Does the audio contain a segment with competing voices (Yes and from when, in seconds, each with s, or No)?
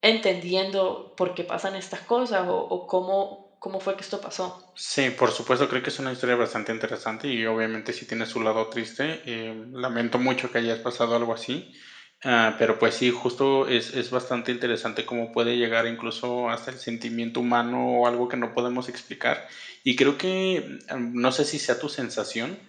No